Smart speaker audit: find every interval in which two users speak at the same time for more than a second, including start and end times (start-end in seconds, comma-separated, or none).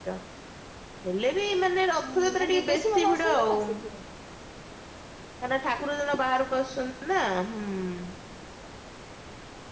2.0-3.8